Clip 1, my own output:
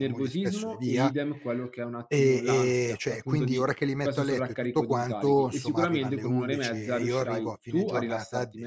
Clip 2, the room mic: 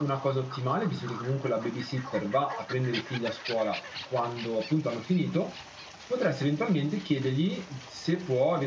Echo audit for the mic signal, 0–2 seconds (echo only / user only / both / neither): user only